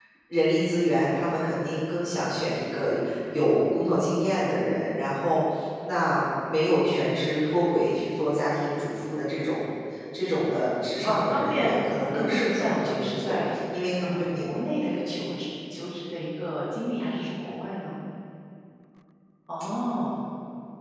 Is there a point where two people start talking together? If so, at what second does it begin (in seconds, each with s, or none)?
11.0 s